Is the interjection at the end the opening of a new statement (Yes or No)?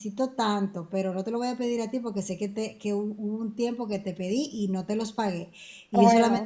No